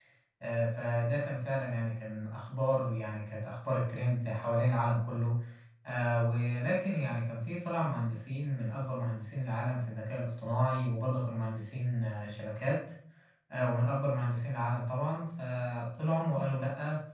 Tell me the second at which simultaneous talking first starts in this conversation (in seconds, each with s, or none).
none